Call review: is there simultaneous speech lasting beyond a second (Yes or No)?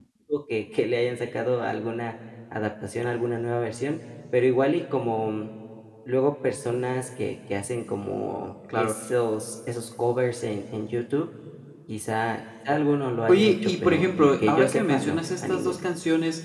Yes